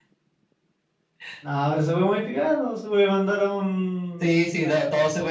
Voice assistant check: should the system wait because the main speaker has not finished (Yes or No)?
No